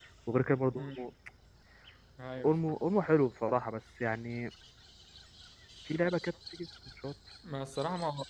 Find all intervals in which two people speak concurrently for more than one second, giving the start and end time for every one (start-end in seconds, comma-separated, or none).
none